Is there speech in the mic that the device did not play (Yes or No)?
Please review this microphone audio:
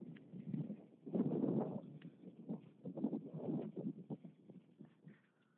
No